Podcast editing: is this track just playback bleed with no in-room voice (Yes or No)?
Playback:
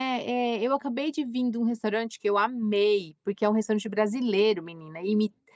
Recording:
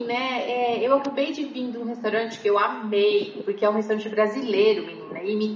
Yes